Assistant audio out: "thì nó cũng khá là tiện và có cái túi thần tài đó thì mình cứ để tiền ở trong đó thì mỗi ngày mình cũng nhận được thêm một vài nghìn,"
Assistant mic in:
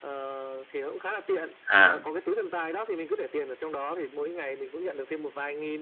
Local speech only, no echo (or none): à,